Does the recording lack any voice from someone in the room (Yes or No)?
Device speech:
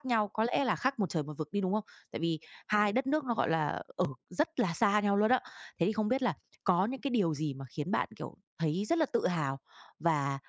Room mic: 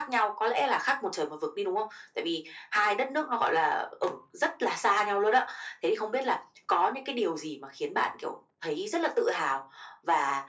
Yes